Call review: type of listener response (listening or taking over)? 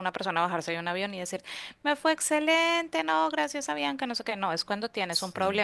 listening